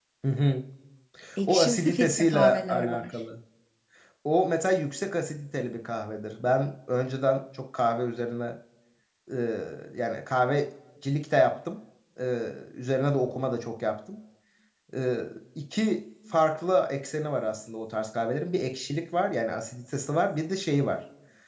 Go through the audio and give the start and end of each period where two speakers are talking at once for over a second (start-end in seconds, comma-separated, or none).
1.5-3.0